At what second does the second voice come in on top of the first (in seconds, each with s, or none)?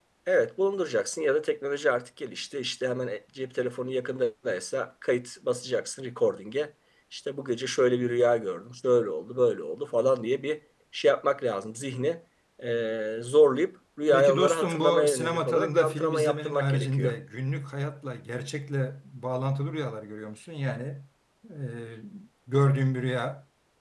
14.1 s